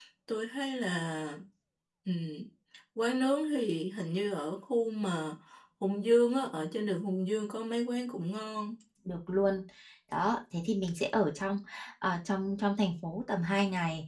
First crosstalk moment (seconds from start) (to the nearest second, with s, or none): none